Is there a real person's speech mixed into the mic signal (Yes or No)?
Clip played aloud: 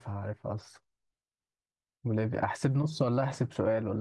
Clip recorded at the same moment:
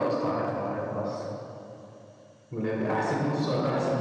No